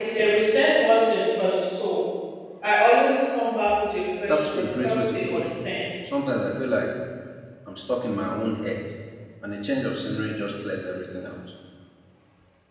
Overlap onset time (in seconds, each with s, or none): 4.3 s